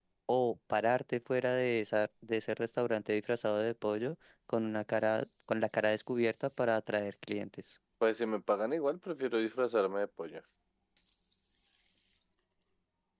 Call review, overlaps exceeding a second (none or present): none